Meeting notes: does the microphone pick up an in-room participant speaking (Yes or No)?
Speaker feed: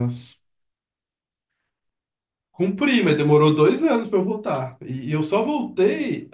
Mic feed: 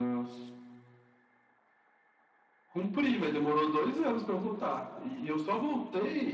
No